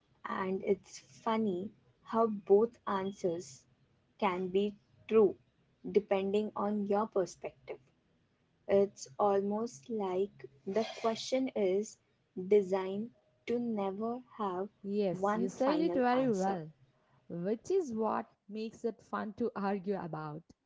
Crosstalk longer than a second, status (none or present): present